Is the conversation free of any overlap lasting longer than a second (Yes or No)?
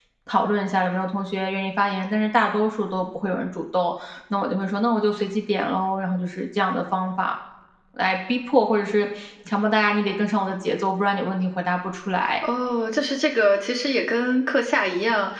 Yes